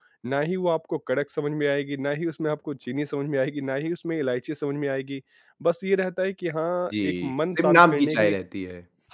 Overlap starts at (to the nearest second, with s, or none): 7 s